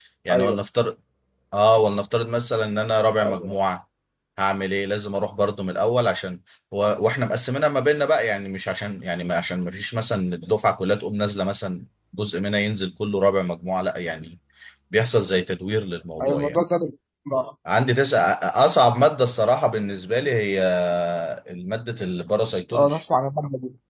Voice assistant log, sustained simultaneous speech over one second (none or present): none